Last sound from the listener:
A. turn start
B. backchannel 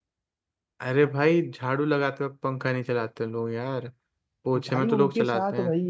A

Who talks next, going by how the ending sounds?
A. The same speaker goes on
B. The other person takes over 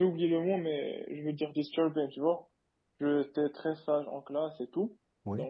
A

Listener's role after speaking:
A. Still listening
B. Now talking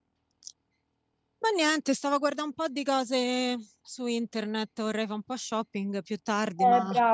B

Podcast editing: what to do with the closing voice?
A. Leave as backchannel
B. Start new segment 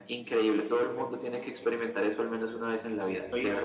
B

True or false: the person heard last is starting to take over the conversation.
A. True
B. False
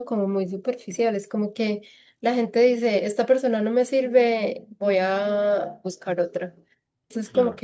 B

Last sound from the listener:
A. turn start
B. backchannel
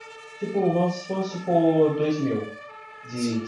A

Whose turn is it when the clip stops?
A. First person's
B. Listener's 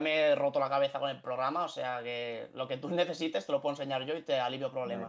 B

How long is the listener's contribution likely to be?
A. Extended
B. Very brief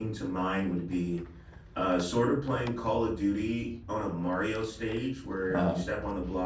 B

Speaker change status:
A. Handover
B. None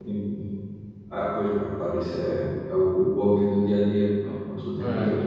B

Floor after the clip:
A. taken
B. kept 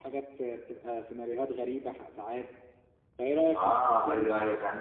A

